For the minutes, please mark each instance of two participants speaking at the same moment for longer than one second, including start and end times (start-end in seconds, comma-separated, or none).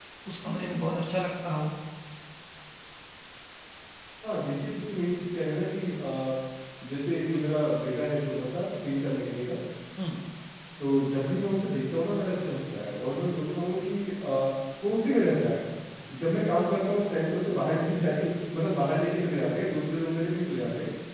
none